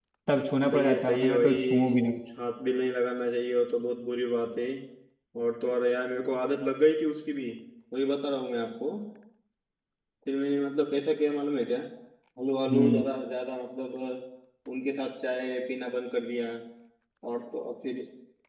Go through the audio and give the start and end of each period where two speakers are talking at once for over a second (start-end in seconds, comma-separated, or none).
0.6-1.9